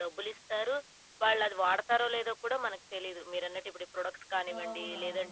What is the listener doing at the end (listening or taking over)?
listening